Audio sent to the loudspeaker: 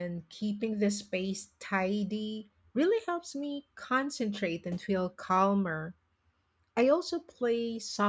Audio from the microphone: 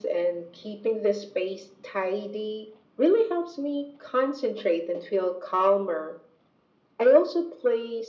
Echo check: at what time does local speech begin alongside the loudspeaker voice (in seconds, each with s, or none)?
none